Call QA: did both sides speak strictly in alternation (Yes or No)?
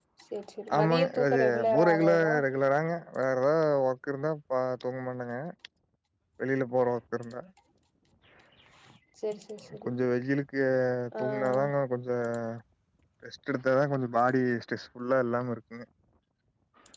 No